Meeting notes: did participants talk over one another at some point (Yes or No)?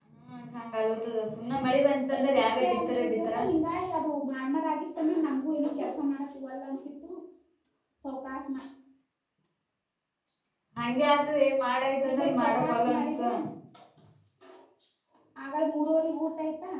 Yes